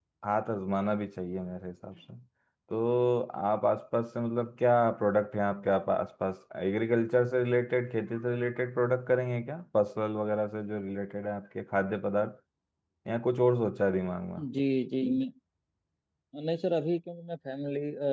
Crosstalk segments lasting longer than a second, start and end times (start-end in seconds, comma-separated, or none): none